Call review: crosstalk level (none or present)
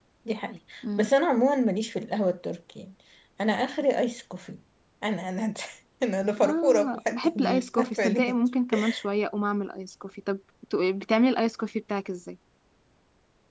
present